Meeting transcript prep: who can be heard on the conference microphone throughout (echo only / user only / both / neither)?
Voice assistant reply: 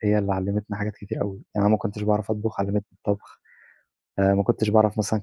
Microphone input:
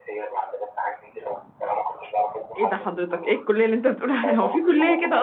both